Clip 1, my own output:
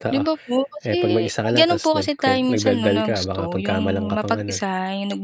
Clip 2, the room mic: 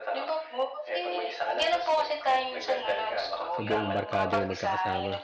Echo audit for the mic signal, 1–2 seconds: echo only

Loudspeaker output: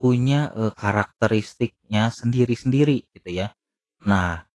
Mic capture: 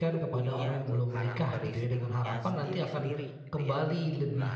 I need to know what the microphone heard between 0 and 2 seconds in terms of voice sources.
both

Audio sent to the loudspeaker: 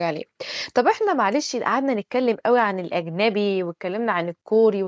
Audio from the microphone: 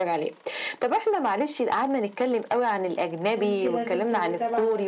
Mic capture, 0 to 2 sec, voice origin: echo only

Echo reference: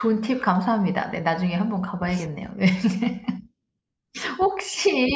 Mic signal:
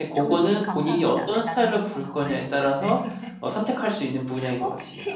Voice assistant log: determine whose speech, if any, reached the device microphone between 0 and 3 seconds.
both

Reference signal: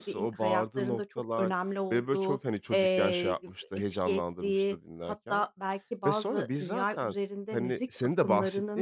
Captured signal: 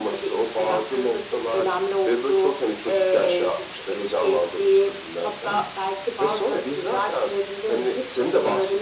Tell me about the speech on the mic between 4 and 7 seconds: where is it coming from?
echo only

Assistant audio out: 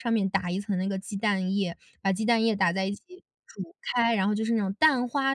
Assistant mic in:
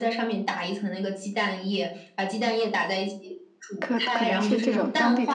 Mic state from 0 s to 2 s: echo only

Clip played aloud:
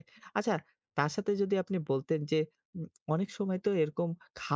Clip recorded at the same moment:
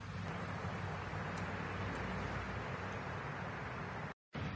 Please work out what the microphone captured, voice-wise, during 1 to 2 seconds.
neither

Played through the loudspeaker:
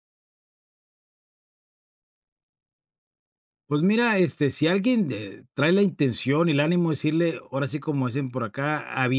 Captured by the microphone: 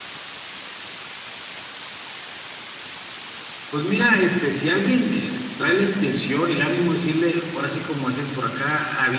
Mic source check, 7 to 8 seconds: echo only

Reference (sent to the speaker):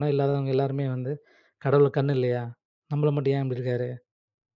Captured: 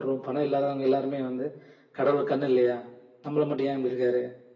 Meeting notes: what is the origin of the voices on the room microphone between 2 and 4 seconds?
echo only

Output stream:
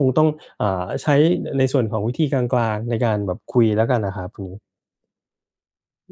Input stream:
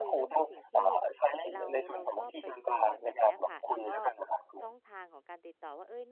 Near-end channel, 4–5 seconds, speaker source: both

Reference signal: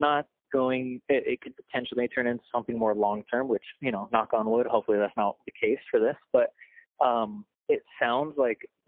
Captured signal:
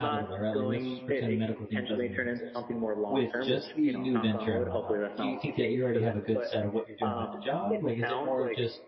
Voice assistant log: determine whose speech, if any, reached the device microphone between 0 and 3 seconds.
both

